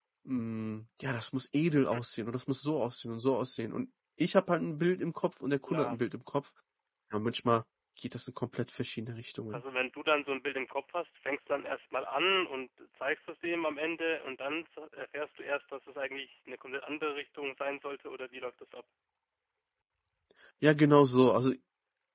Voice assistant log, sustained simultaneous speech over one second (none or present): none